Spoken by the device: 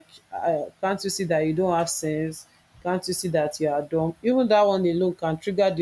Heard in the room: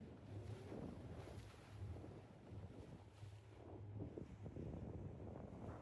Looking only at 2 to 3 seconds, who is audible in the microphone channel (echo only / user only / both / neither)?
neither